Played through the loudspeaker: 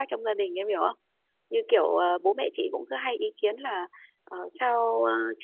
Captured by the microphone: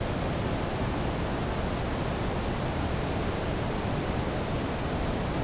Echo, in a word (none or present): none